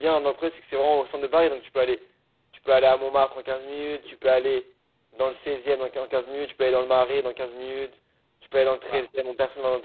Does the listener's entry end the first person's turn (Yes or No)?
No